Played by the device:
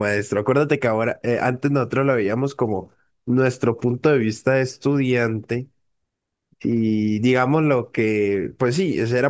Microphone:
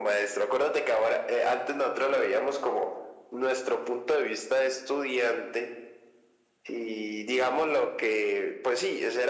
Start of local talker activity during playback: none

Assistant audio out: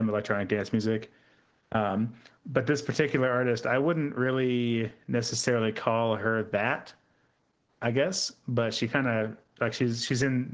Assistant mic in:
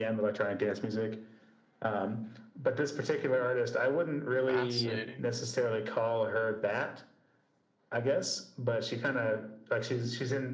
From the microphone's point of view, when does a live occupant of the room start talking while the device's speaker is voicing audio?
4.5 s

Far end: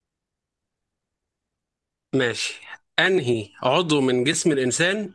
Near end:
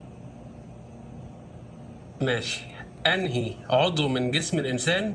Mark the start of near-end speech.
none

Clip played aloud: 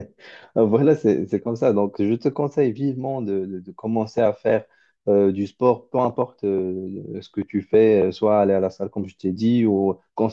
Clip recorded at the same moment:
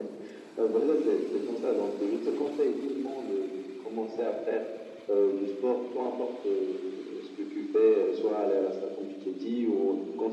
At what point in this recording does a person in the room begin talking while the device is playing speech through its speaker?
none

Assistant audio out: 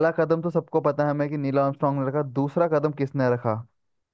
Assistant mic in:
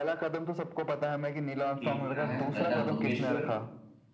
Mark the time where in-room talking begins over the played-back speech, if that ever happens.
1.8 s

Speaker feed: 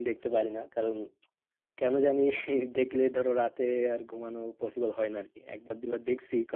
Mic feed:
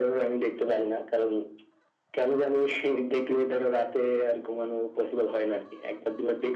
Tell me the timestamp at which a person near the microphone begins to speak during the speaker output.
none

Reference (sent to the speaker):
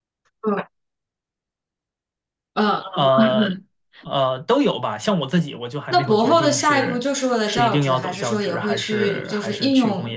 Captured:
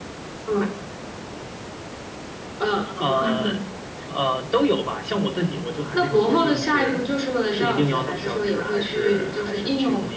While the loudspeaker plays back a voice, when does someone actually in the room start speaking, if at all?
none

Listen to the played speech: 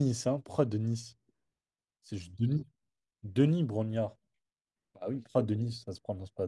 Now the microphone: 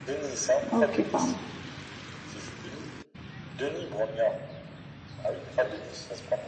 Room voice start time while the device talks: 0.7 s

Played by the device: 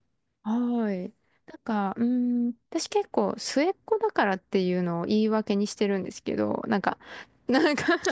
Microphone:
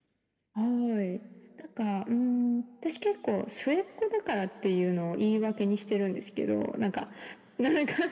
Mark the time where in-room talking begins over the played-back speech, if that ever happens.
none

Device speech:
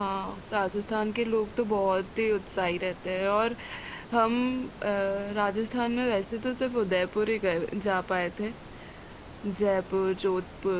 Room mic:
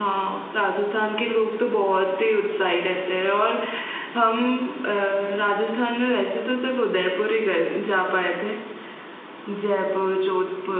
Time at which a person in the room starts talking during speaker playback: none

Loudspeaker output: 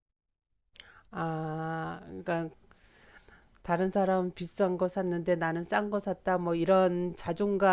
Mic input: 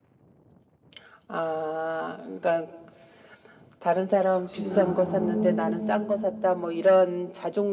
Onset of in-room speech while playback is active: 4.3 s

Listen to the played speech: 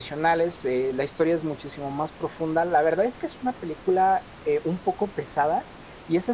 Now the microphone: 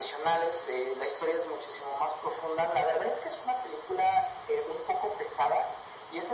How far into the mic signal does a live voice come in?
none

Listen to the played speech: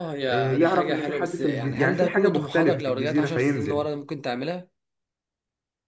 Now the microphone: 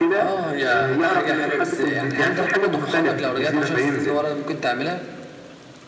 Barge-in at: none

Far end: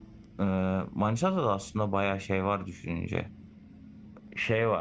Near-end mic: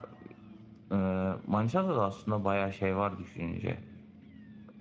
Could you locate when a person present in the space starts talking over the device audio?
none

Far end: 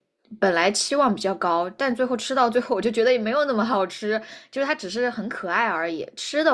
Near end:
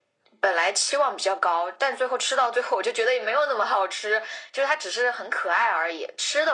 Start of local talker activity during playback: none

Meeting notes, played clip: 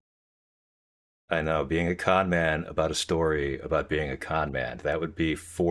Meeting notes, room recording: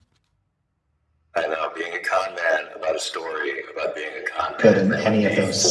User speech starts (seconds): 4.6 s

